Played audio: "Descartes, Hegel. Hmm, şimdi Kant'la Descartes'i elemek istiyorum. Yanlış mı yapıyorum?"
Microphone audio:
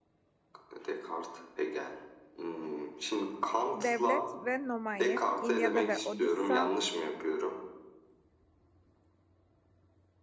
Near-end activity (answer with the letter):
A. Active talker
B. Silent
A